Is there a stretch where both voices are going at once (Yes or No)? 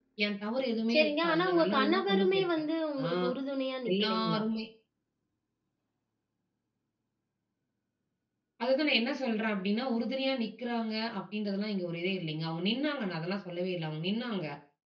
Yes